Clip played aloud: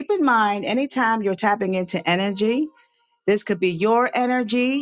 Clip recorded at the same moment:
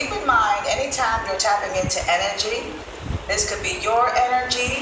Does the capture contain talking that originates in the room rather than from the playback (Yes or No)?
No